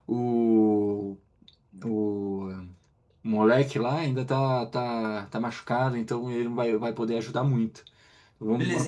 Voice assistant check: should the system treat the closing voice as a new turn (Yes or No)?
Yes